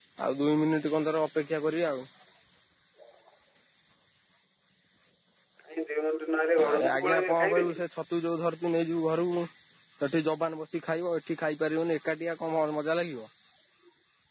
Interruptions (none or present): present